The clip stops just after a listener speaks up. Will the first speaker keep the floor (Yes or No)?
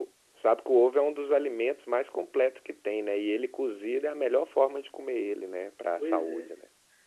No